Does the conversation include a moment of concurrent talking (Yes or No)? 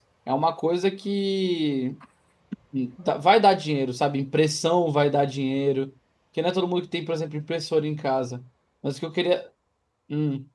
No